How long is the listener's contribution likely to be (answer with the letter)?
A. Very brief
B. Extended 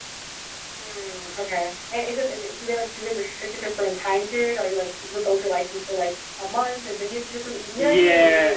B